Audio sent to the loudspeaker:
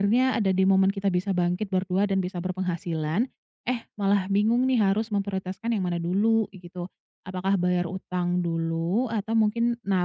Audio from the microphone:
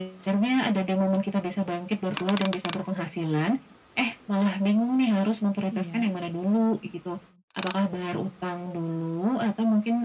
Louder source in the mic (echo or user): echo